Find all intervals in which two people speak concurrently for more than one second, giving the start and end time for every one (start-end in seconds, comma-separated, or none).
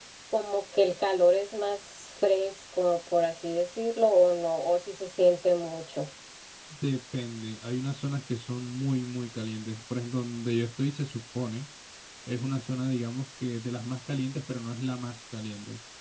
none